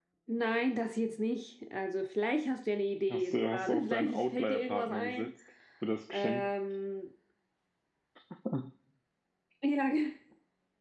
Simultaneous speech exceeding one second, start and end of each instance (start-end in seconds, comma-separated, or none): 3.1-5.3